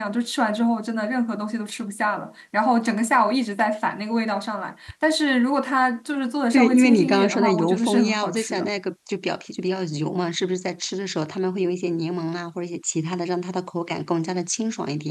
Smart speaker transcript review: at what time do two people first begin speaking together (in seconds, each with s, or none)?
6.5 s